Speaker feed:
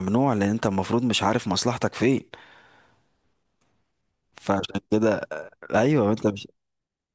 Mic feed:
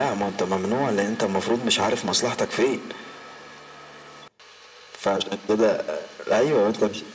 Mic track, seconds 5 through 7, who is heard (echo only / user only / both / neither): echo only